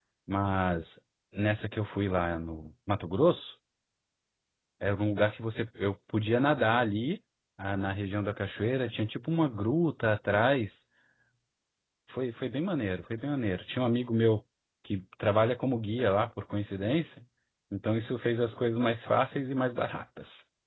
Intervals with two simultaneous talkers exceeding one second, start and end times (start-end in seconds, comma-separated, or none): none